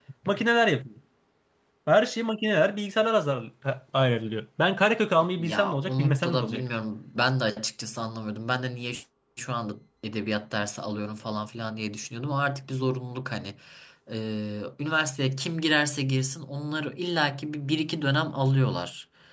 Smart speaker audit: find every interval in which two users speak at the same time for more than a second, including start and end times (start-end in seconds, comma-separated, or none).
5.4-6.6